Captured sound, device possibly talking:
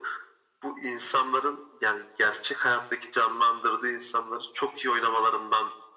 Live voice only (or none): none